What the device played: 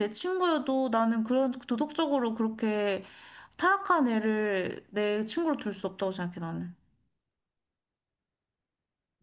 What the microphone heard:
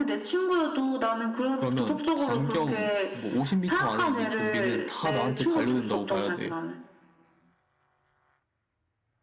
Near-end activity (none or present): present